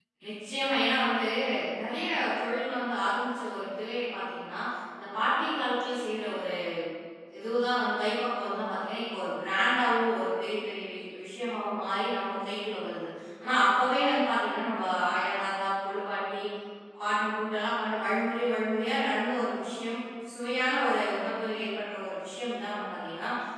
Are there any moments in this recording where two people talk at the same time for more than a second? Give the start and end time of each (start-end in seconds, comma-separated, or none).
none